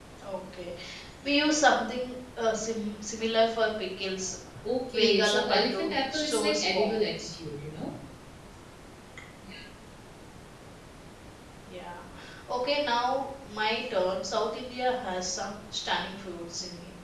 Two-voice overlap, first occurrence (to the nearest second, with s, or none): 5 s